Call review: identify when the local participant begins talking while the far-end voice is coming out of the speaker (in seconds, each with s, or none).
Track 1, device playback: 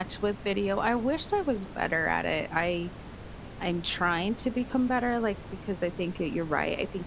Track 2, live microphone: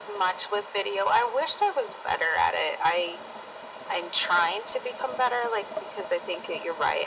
none